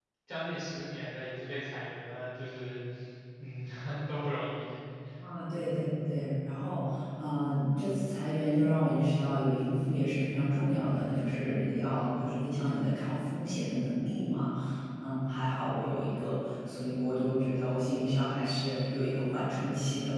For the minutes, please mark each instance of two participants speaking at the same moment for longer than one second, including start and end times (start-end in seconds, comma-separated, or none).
none